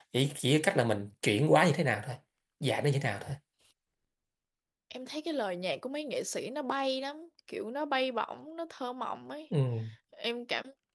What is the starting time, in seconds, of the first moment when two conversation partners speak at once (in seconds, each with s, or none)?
none